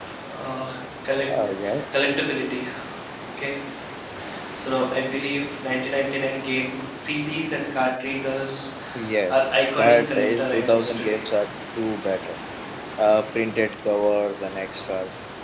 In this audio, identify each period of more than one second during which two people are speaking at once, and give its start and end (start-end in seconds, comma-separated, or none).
9.8-11.2